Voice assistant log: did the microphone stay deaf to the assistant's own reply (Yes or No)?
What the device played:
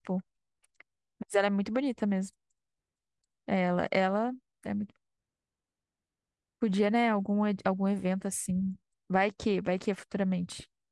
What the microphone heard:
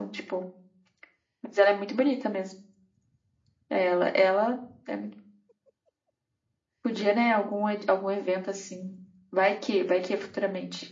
No